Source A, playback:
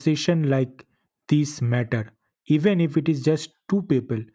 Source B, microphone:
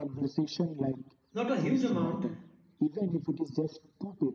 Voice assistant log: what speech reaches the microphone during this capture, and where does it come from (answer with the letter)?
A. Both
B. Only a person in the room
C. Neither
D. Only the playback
A